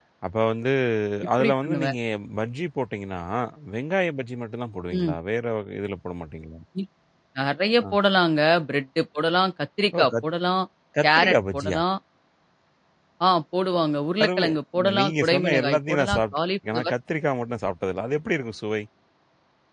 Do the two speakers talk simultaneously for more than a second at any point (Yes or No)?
Yes